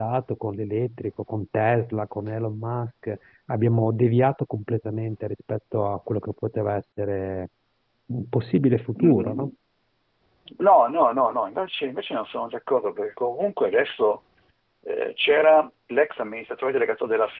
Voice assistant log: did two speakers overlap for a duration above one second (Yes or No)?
No